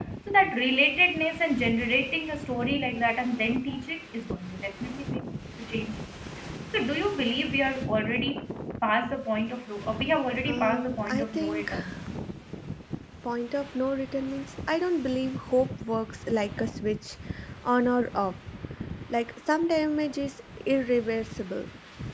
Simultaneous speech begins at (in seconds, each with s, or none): 10.4 s